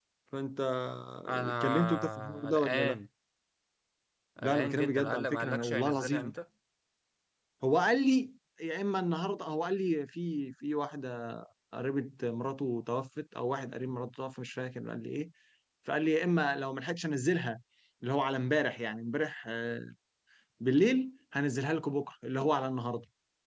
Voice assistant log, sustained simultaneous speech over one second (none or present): present